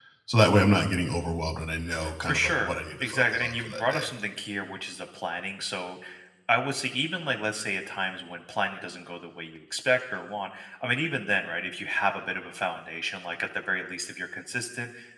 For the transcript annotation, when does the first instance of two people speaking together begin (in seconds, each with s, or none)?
2.0 s